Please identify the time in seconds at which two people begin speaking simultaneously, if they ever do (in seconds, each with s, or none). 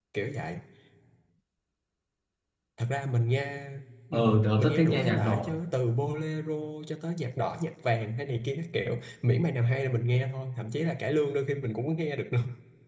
4.1 s